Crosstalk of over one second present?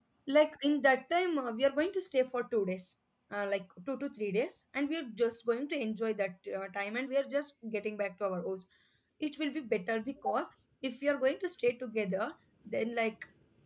No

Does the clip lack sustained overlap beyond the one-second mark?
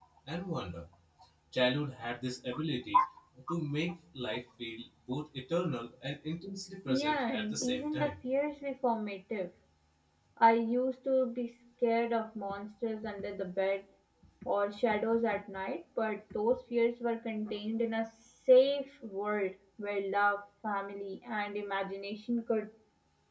No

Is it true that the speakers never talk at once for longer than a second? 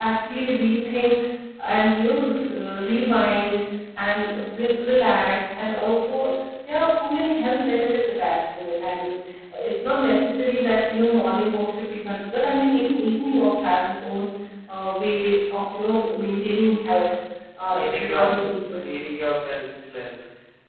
Yes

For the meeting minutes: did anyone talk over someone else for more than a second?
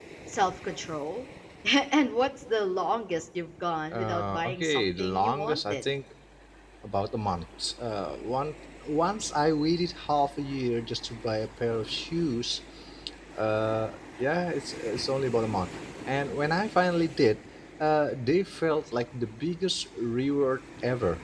Yes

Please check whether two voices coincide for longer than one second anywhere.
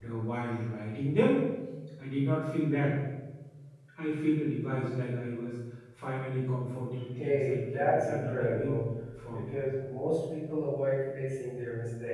Yes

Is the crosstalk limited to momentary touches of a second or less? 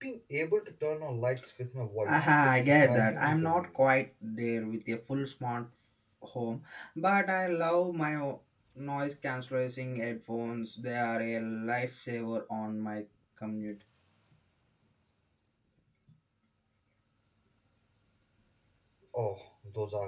No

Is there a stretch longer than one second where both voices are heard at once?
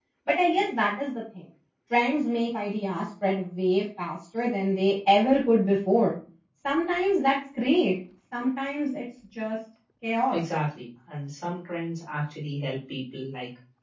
No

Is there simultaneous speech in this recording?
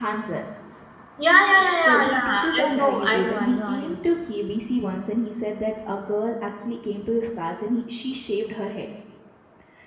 Yes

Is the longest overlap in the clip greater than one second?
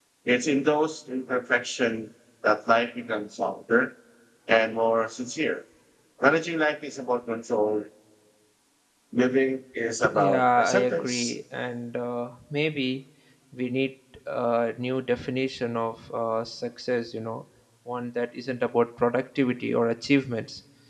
Yes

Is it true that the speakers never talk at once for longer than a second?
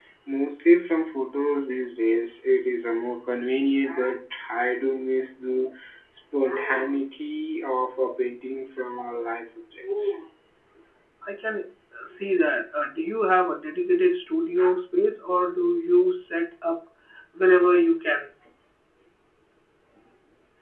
Yes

